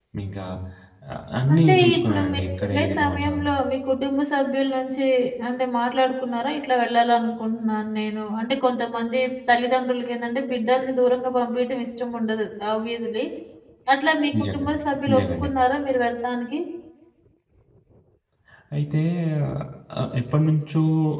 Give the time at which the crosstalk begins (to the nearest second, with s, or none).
2 s